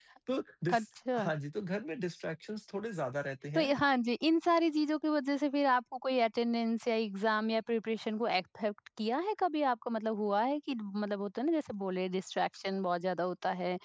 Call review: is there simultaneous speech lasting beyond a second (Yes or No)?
No